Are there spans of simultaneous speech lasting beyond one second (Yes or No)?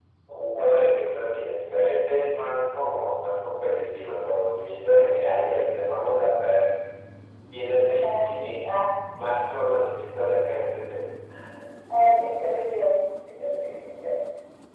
No